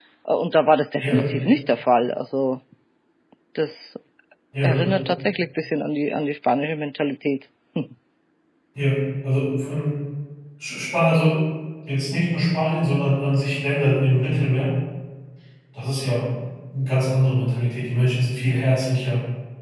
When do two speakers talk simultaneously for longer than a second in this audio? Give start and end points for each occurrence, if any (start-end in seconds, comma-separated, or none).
none